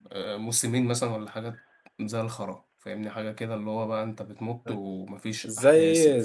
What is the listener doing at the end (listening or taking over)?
taking over